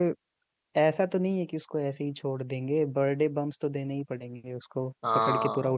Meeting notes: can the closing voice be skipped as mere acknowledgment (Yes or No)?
No